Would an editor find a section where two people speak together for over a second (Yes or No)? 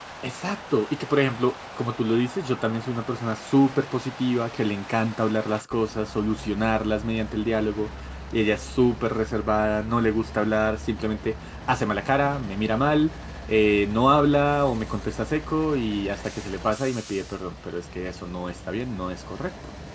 No